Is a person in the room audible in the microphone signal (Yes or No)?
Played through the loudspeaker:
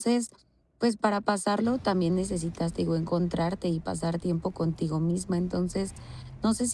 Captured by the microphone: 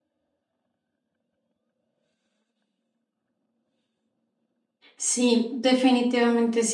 Yes